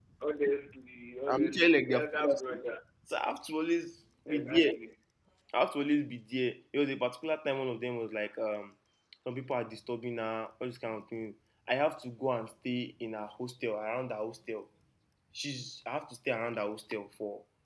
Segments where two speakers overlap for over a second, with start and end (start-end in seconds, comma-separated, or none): 1.3-2.6